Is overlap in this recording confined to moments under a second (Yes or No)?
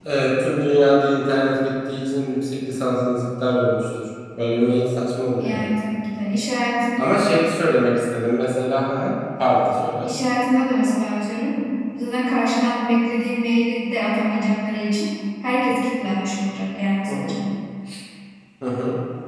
Yes